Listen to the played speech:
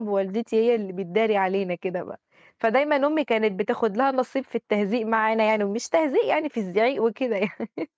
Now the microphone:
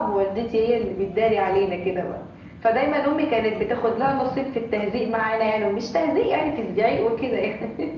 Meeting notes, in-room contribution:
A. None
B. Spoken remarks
A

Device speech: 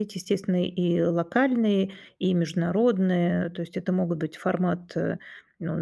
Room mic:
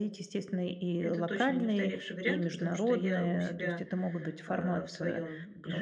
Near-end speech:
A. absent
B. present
B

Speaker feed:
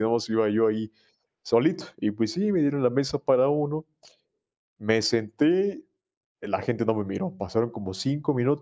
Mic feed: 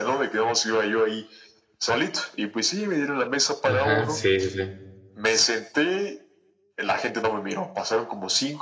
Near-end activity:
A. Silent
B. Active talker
B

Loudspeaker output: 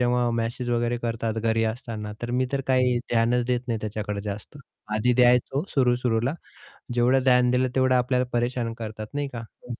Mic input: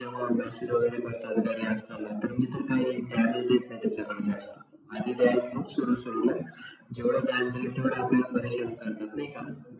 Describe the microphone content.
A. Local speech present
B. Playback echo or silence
B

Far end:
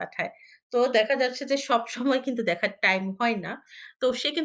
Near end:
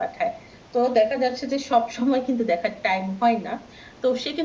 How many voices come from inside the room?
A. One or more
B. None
B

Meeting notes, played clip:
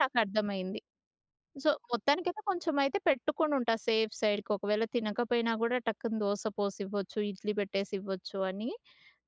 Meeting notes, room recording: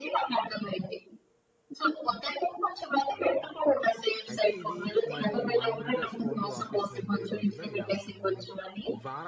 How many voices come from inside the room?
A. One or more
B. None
A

